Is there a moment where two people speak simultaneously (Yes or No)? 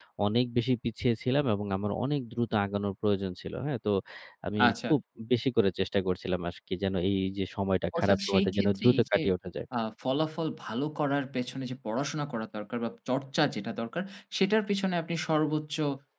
Yes